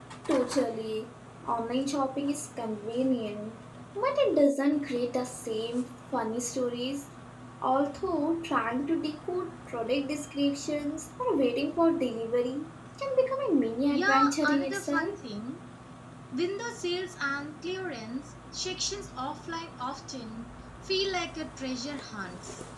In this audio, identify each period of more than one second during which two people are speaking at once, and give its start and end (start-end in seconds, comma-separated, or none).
13.9-15.1